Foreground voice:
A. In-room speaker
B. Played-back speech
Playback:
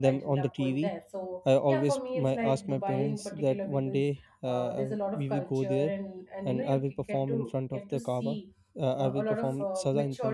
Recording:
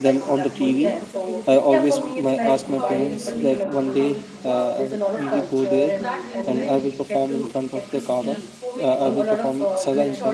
B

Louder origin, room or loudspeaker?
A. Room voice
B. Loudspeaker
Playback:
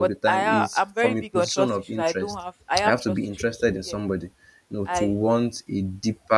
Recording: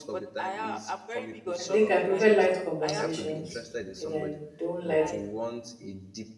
A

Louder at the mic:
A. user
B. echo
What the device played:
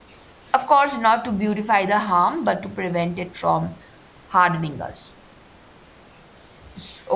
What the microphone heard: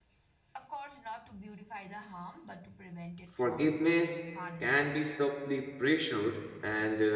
A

